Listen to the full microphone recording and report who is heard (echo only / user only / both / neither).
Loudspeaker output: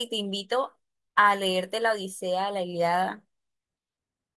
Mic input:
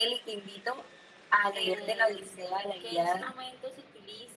both